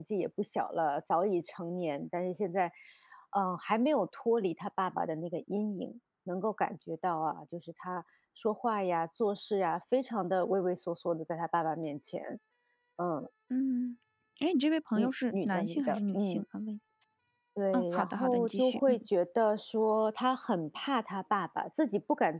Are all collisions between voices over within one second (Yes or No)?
No